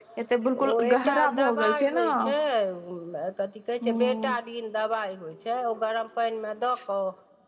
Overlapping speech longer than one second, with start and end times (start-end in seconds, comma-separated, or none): 0.7-2.1